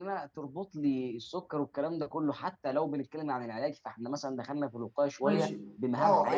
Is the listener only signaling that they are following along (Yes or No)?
No